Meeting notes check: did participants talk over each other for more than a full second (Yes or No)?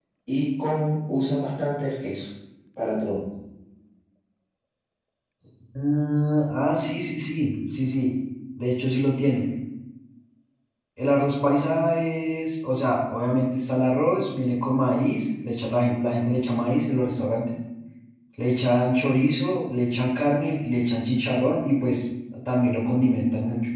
No